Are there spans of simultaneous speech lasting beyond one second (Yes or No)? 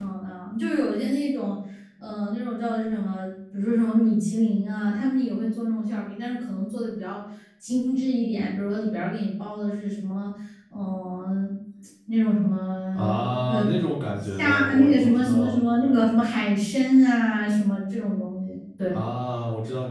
Yes